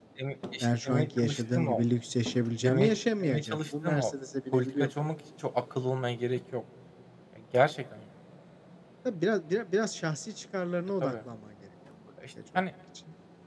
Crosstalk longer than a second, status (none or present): present